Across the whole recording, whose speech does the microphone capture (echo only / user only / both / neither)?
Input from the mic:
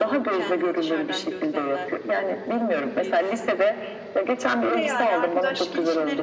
both